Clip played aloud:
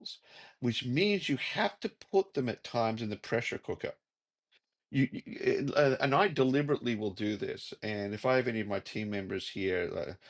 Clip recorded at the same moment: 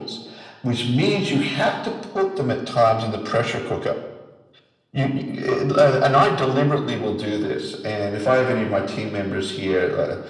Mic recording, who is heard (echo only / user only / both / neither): echo only